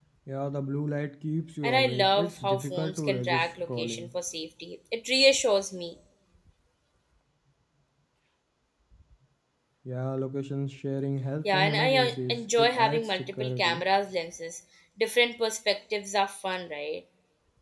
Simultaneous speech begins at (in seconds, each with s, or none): 1.6 s